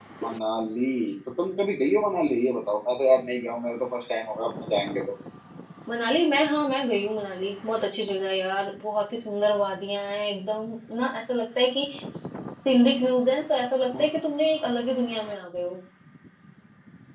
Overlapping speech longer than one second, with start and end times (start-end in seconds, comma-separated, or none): none